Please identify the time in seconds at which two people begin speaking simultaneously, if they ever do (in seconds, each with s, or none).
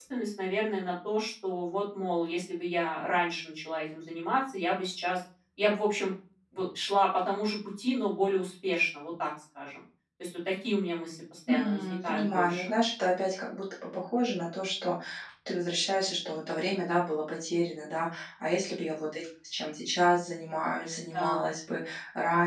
11.5 s